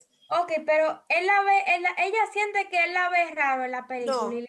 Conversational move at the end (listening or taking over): taking over